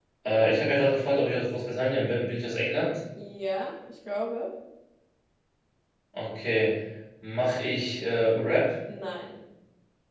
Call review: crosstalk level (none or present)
none